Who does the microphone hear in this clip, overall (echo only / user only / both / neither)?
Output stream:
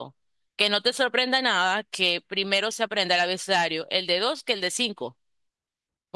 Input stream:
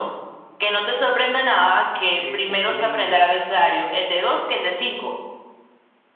both